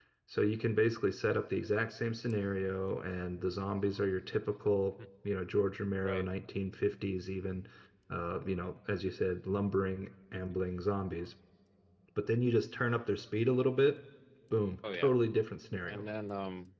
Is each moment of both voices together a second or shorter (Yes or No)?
Yes